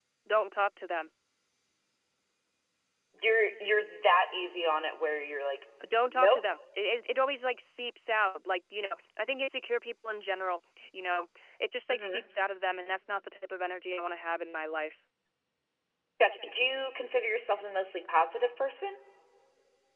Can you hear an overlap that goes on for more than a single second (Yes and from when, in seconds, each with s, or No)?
No